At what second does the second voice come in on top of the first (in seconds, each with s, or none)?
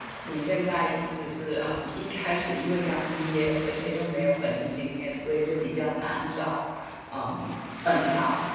none